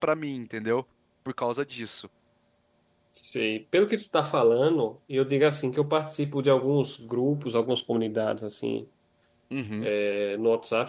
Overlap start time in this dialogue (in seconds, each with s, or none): none